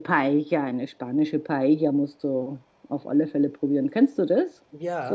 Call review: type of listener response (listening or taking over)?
taking over